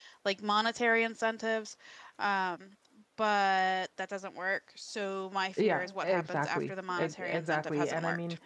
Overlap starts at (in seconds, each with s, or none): 5.6 s